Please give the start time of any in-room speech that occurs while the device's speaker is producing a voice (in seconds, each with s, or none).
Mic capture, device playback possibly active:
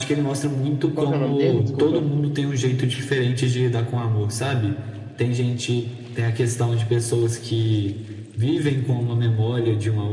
0.9 s